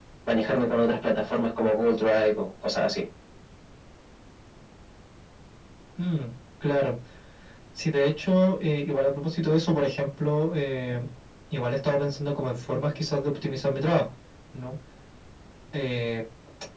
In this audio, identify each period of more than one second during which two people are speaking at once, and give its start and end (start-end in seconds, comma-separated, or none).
none